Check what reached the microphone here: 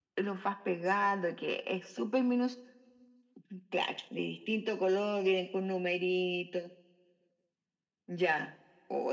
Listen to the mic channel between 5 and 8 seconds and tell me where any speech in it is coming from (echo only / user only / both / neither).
echo only